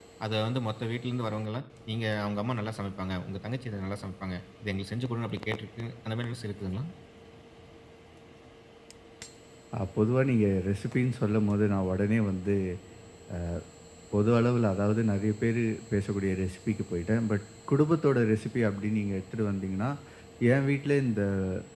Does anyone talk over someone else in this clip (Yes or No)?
No